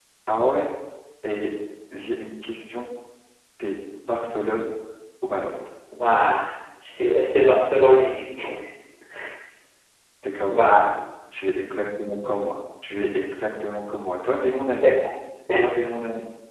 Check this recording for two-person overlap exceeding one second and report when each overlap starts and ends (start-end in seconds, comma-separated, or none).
none